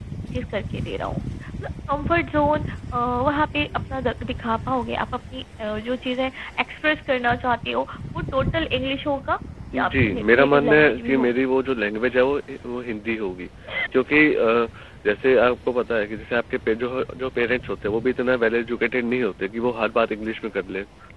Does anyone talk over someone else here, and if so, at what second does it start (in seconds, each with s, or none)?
9.7 s